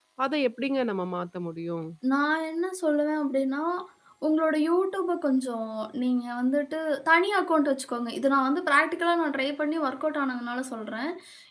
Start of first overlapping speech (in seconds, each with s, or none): none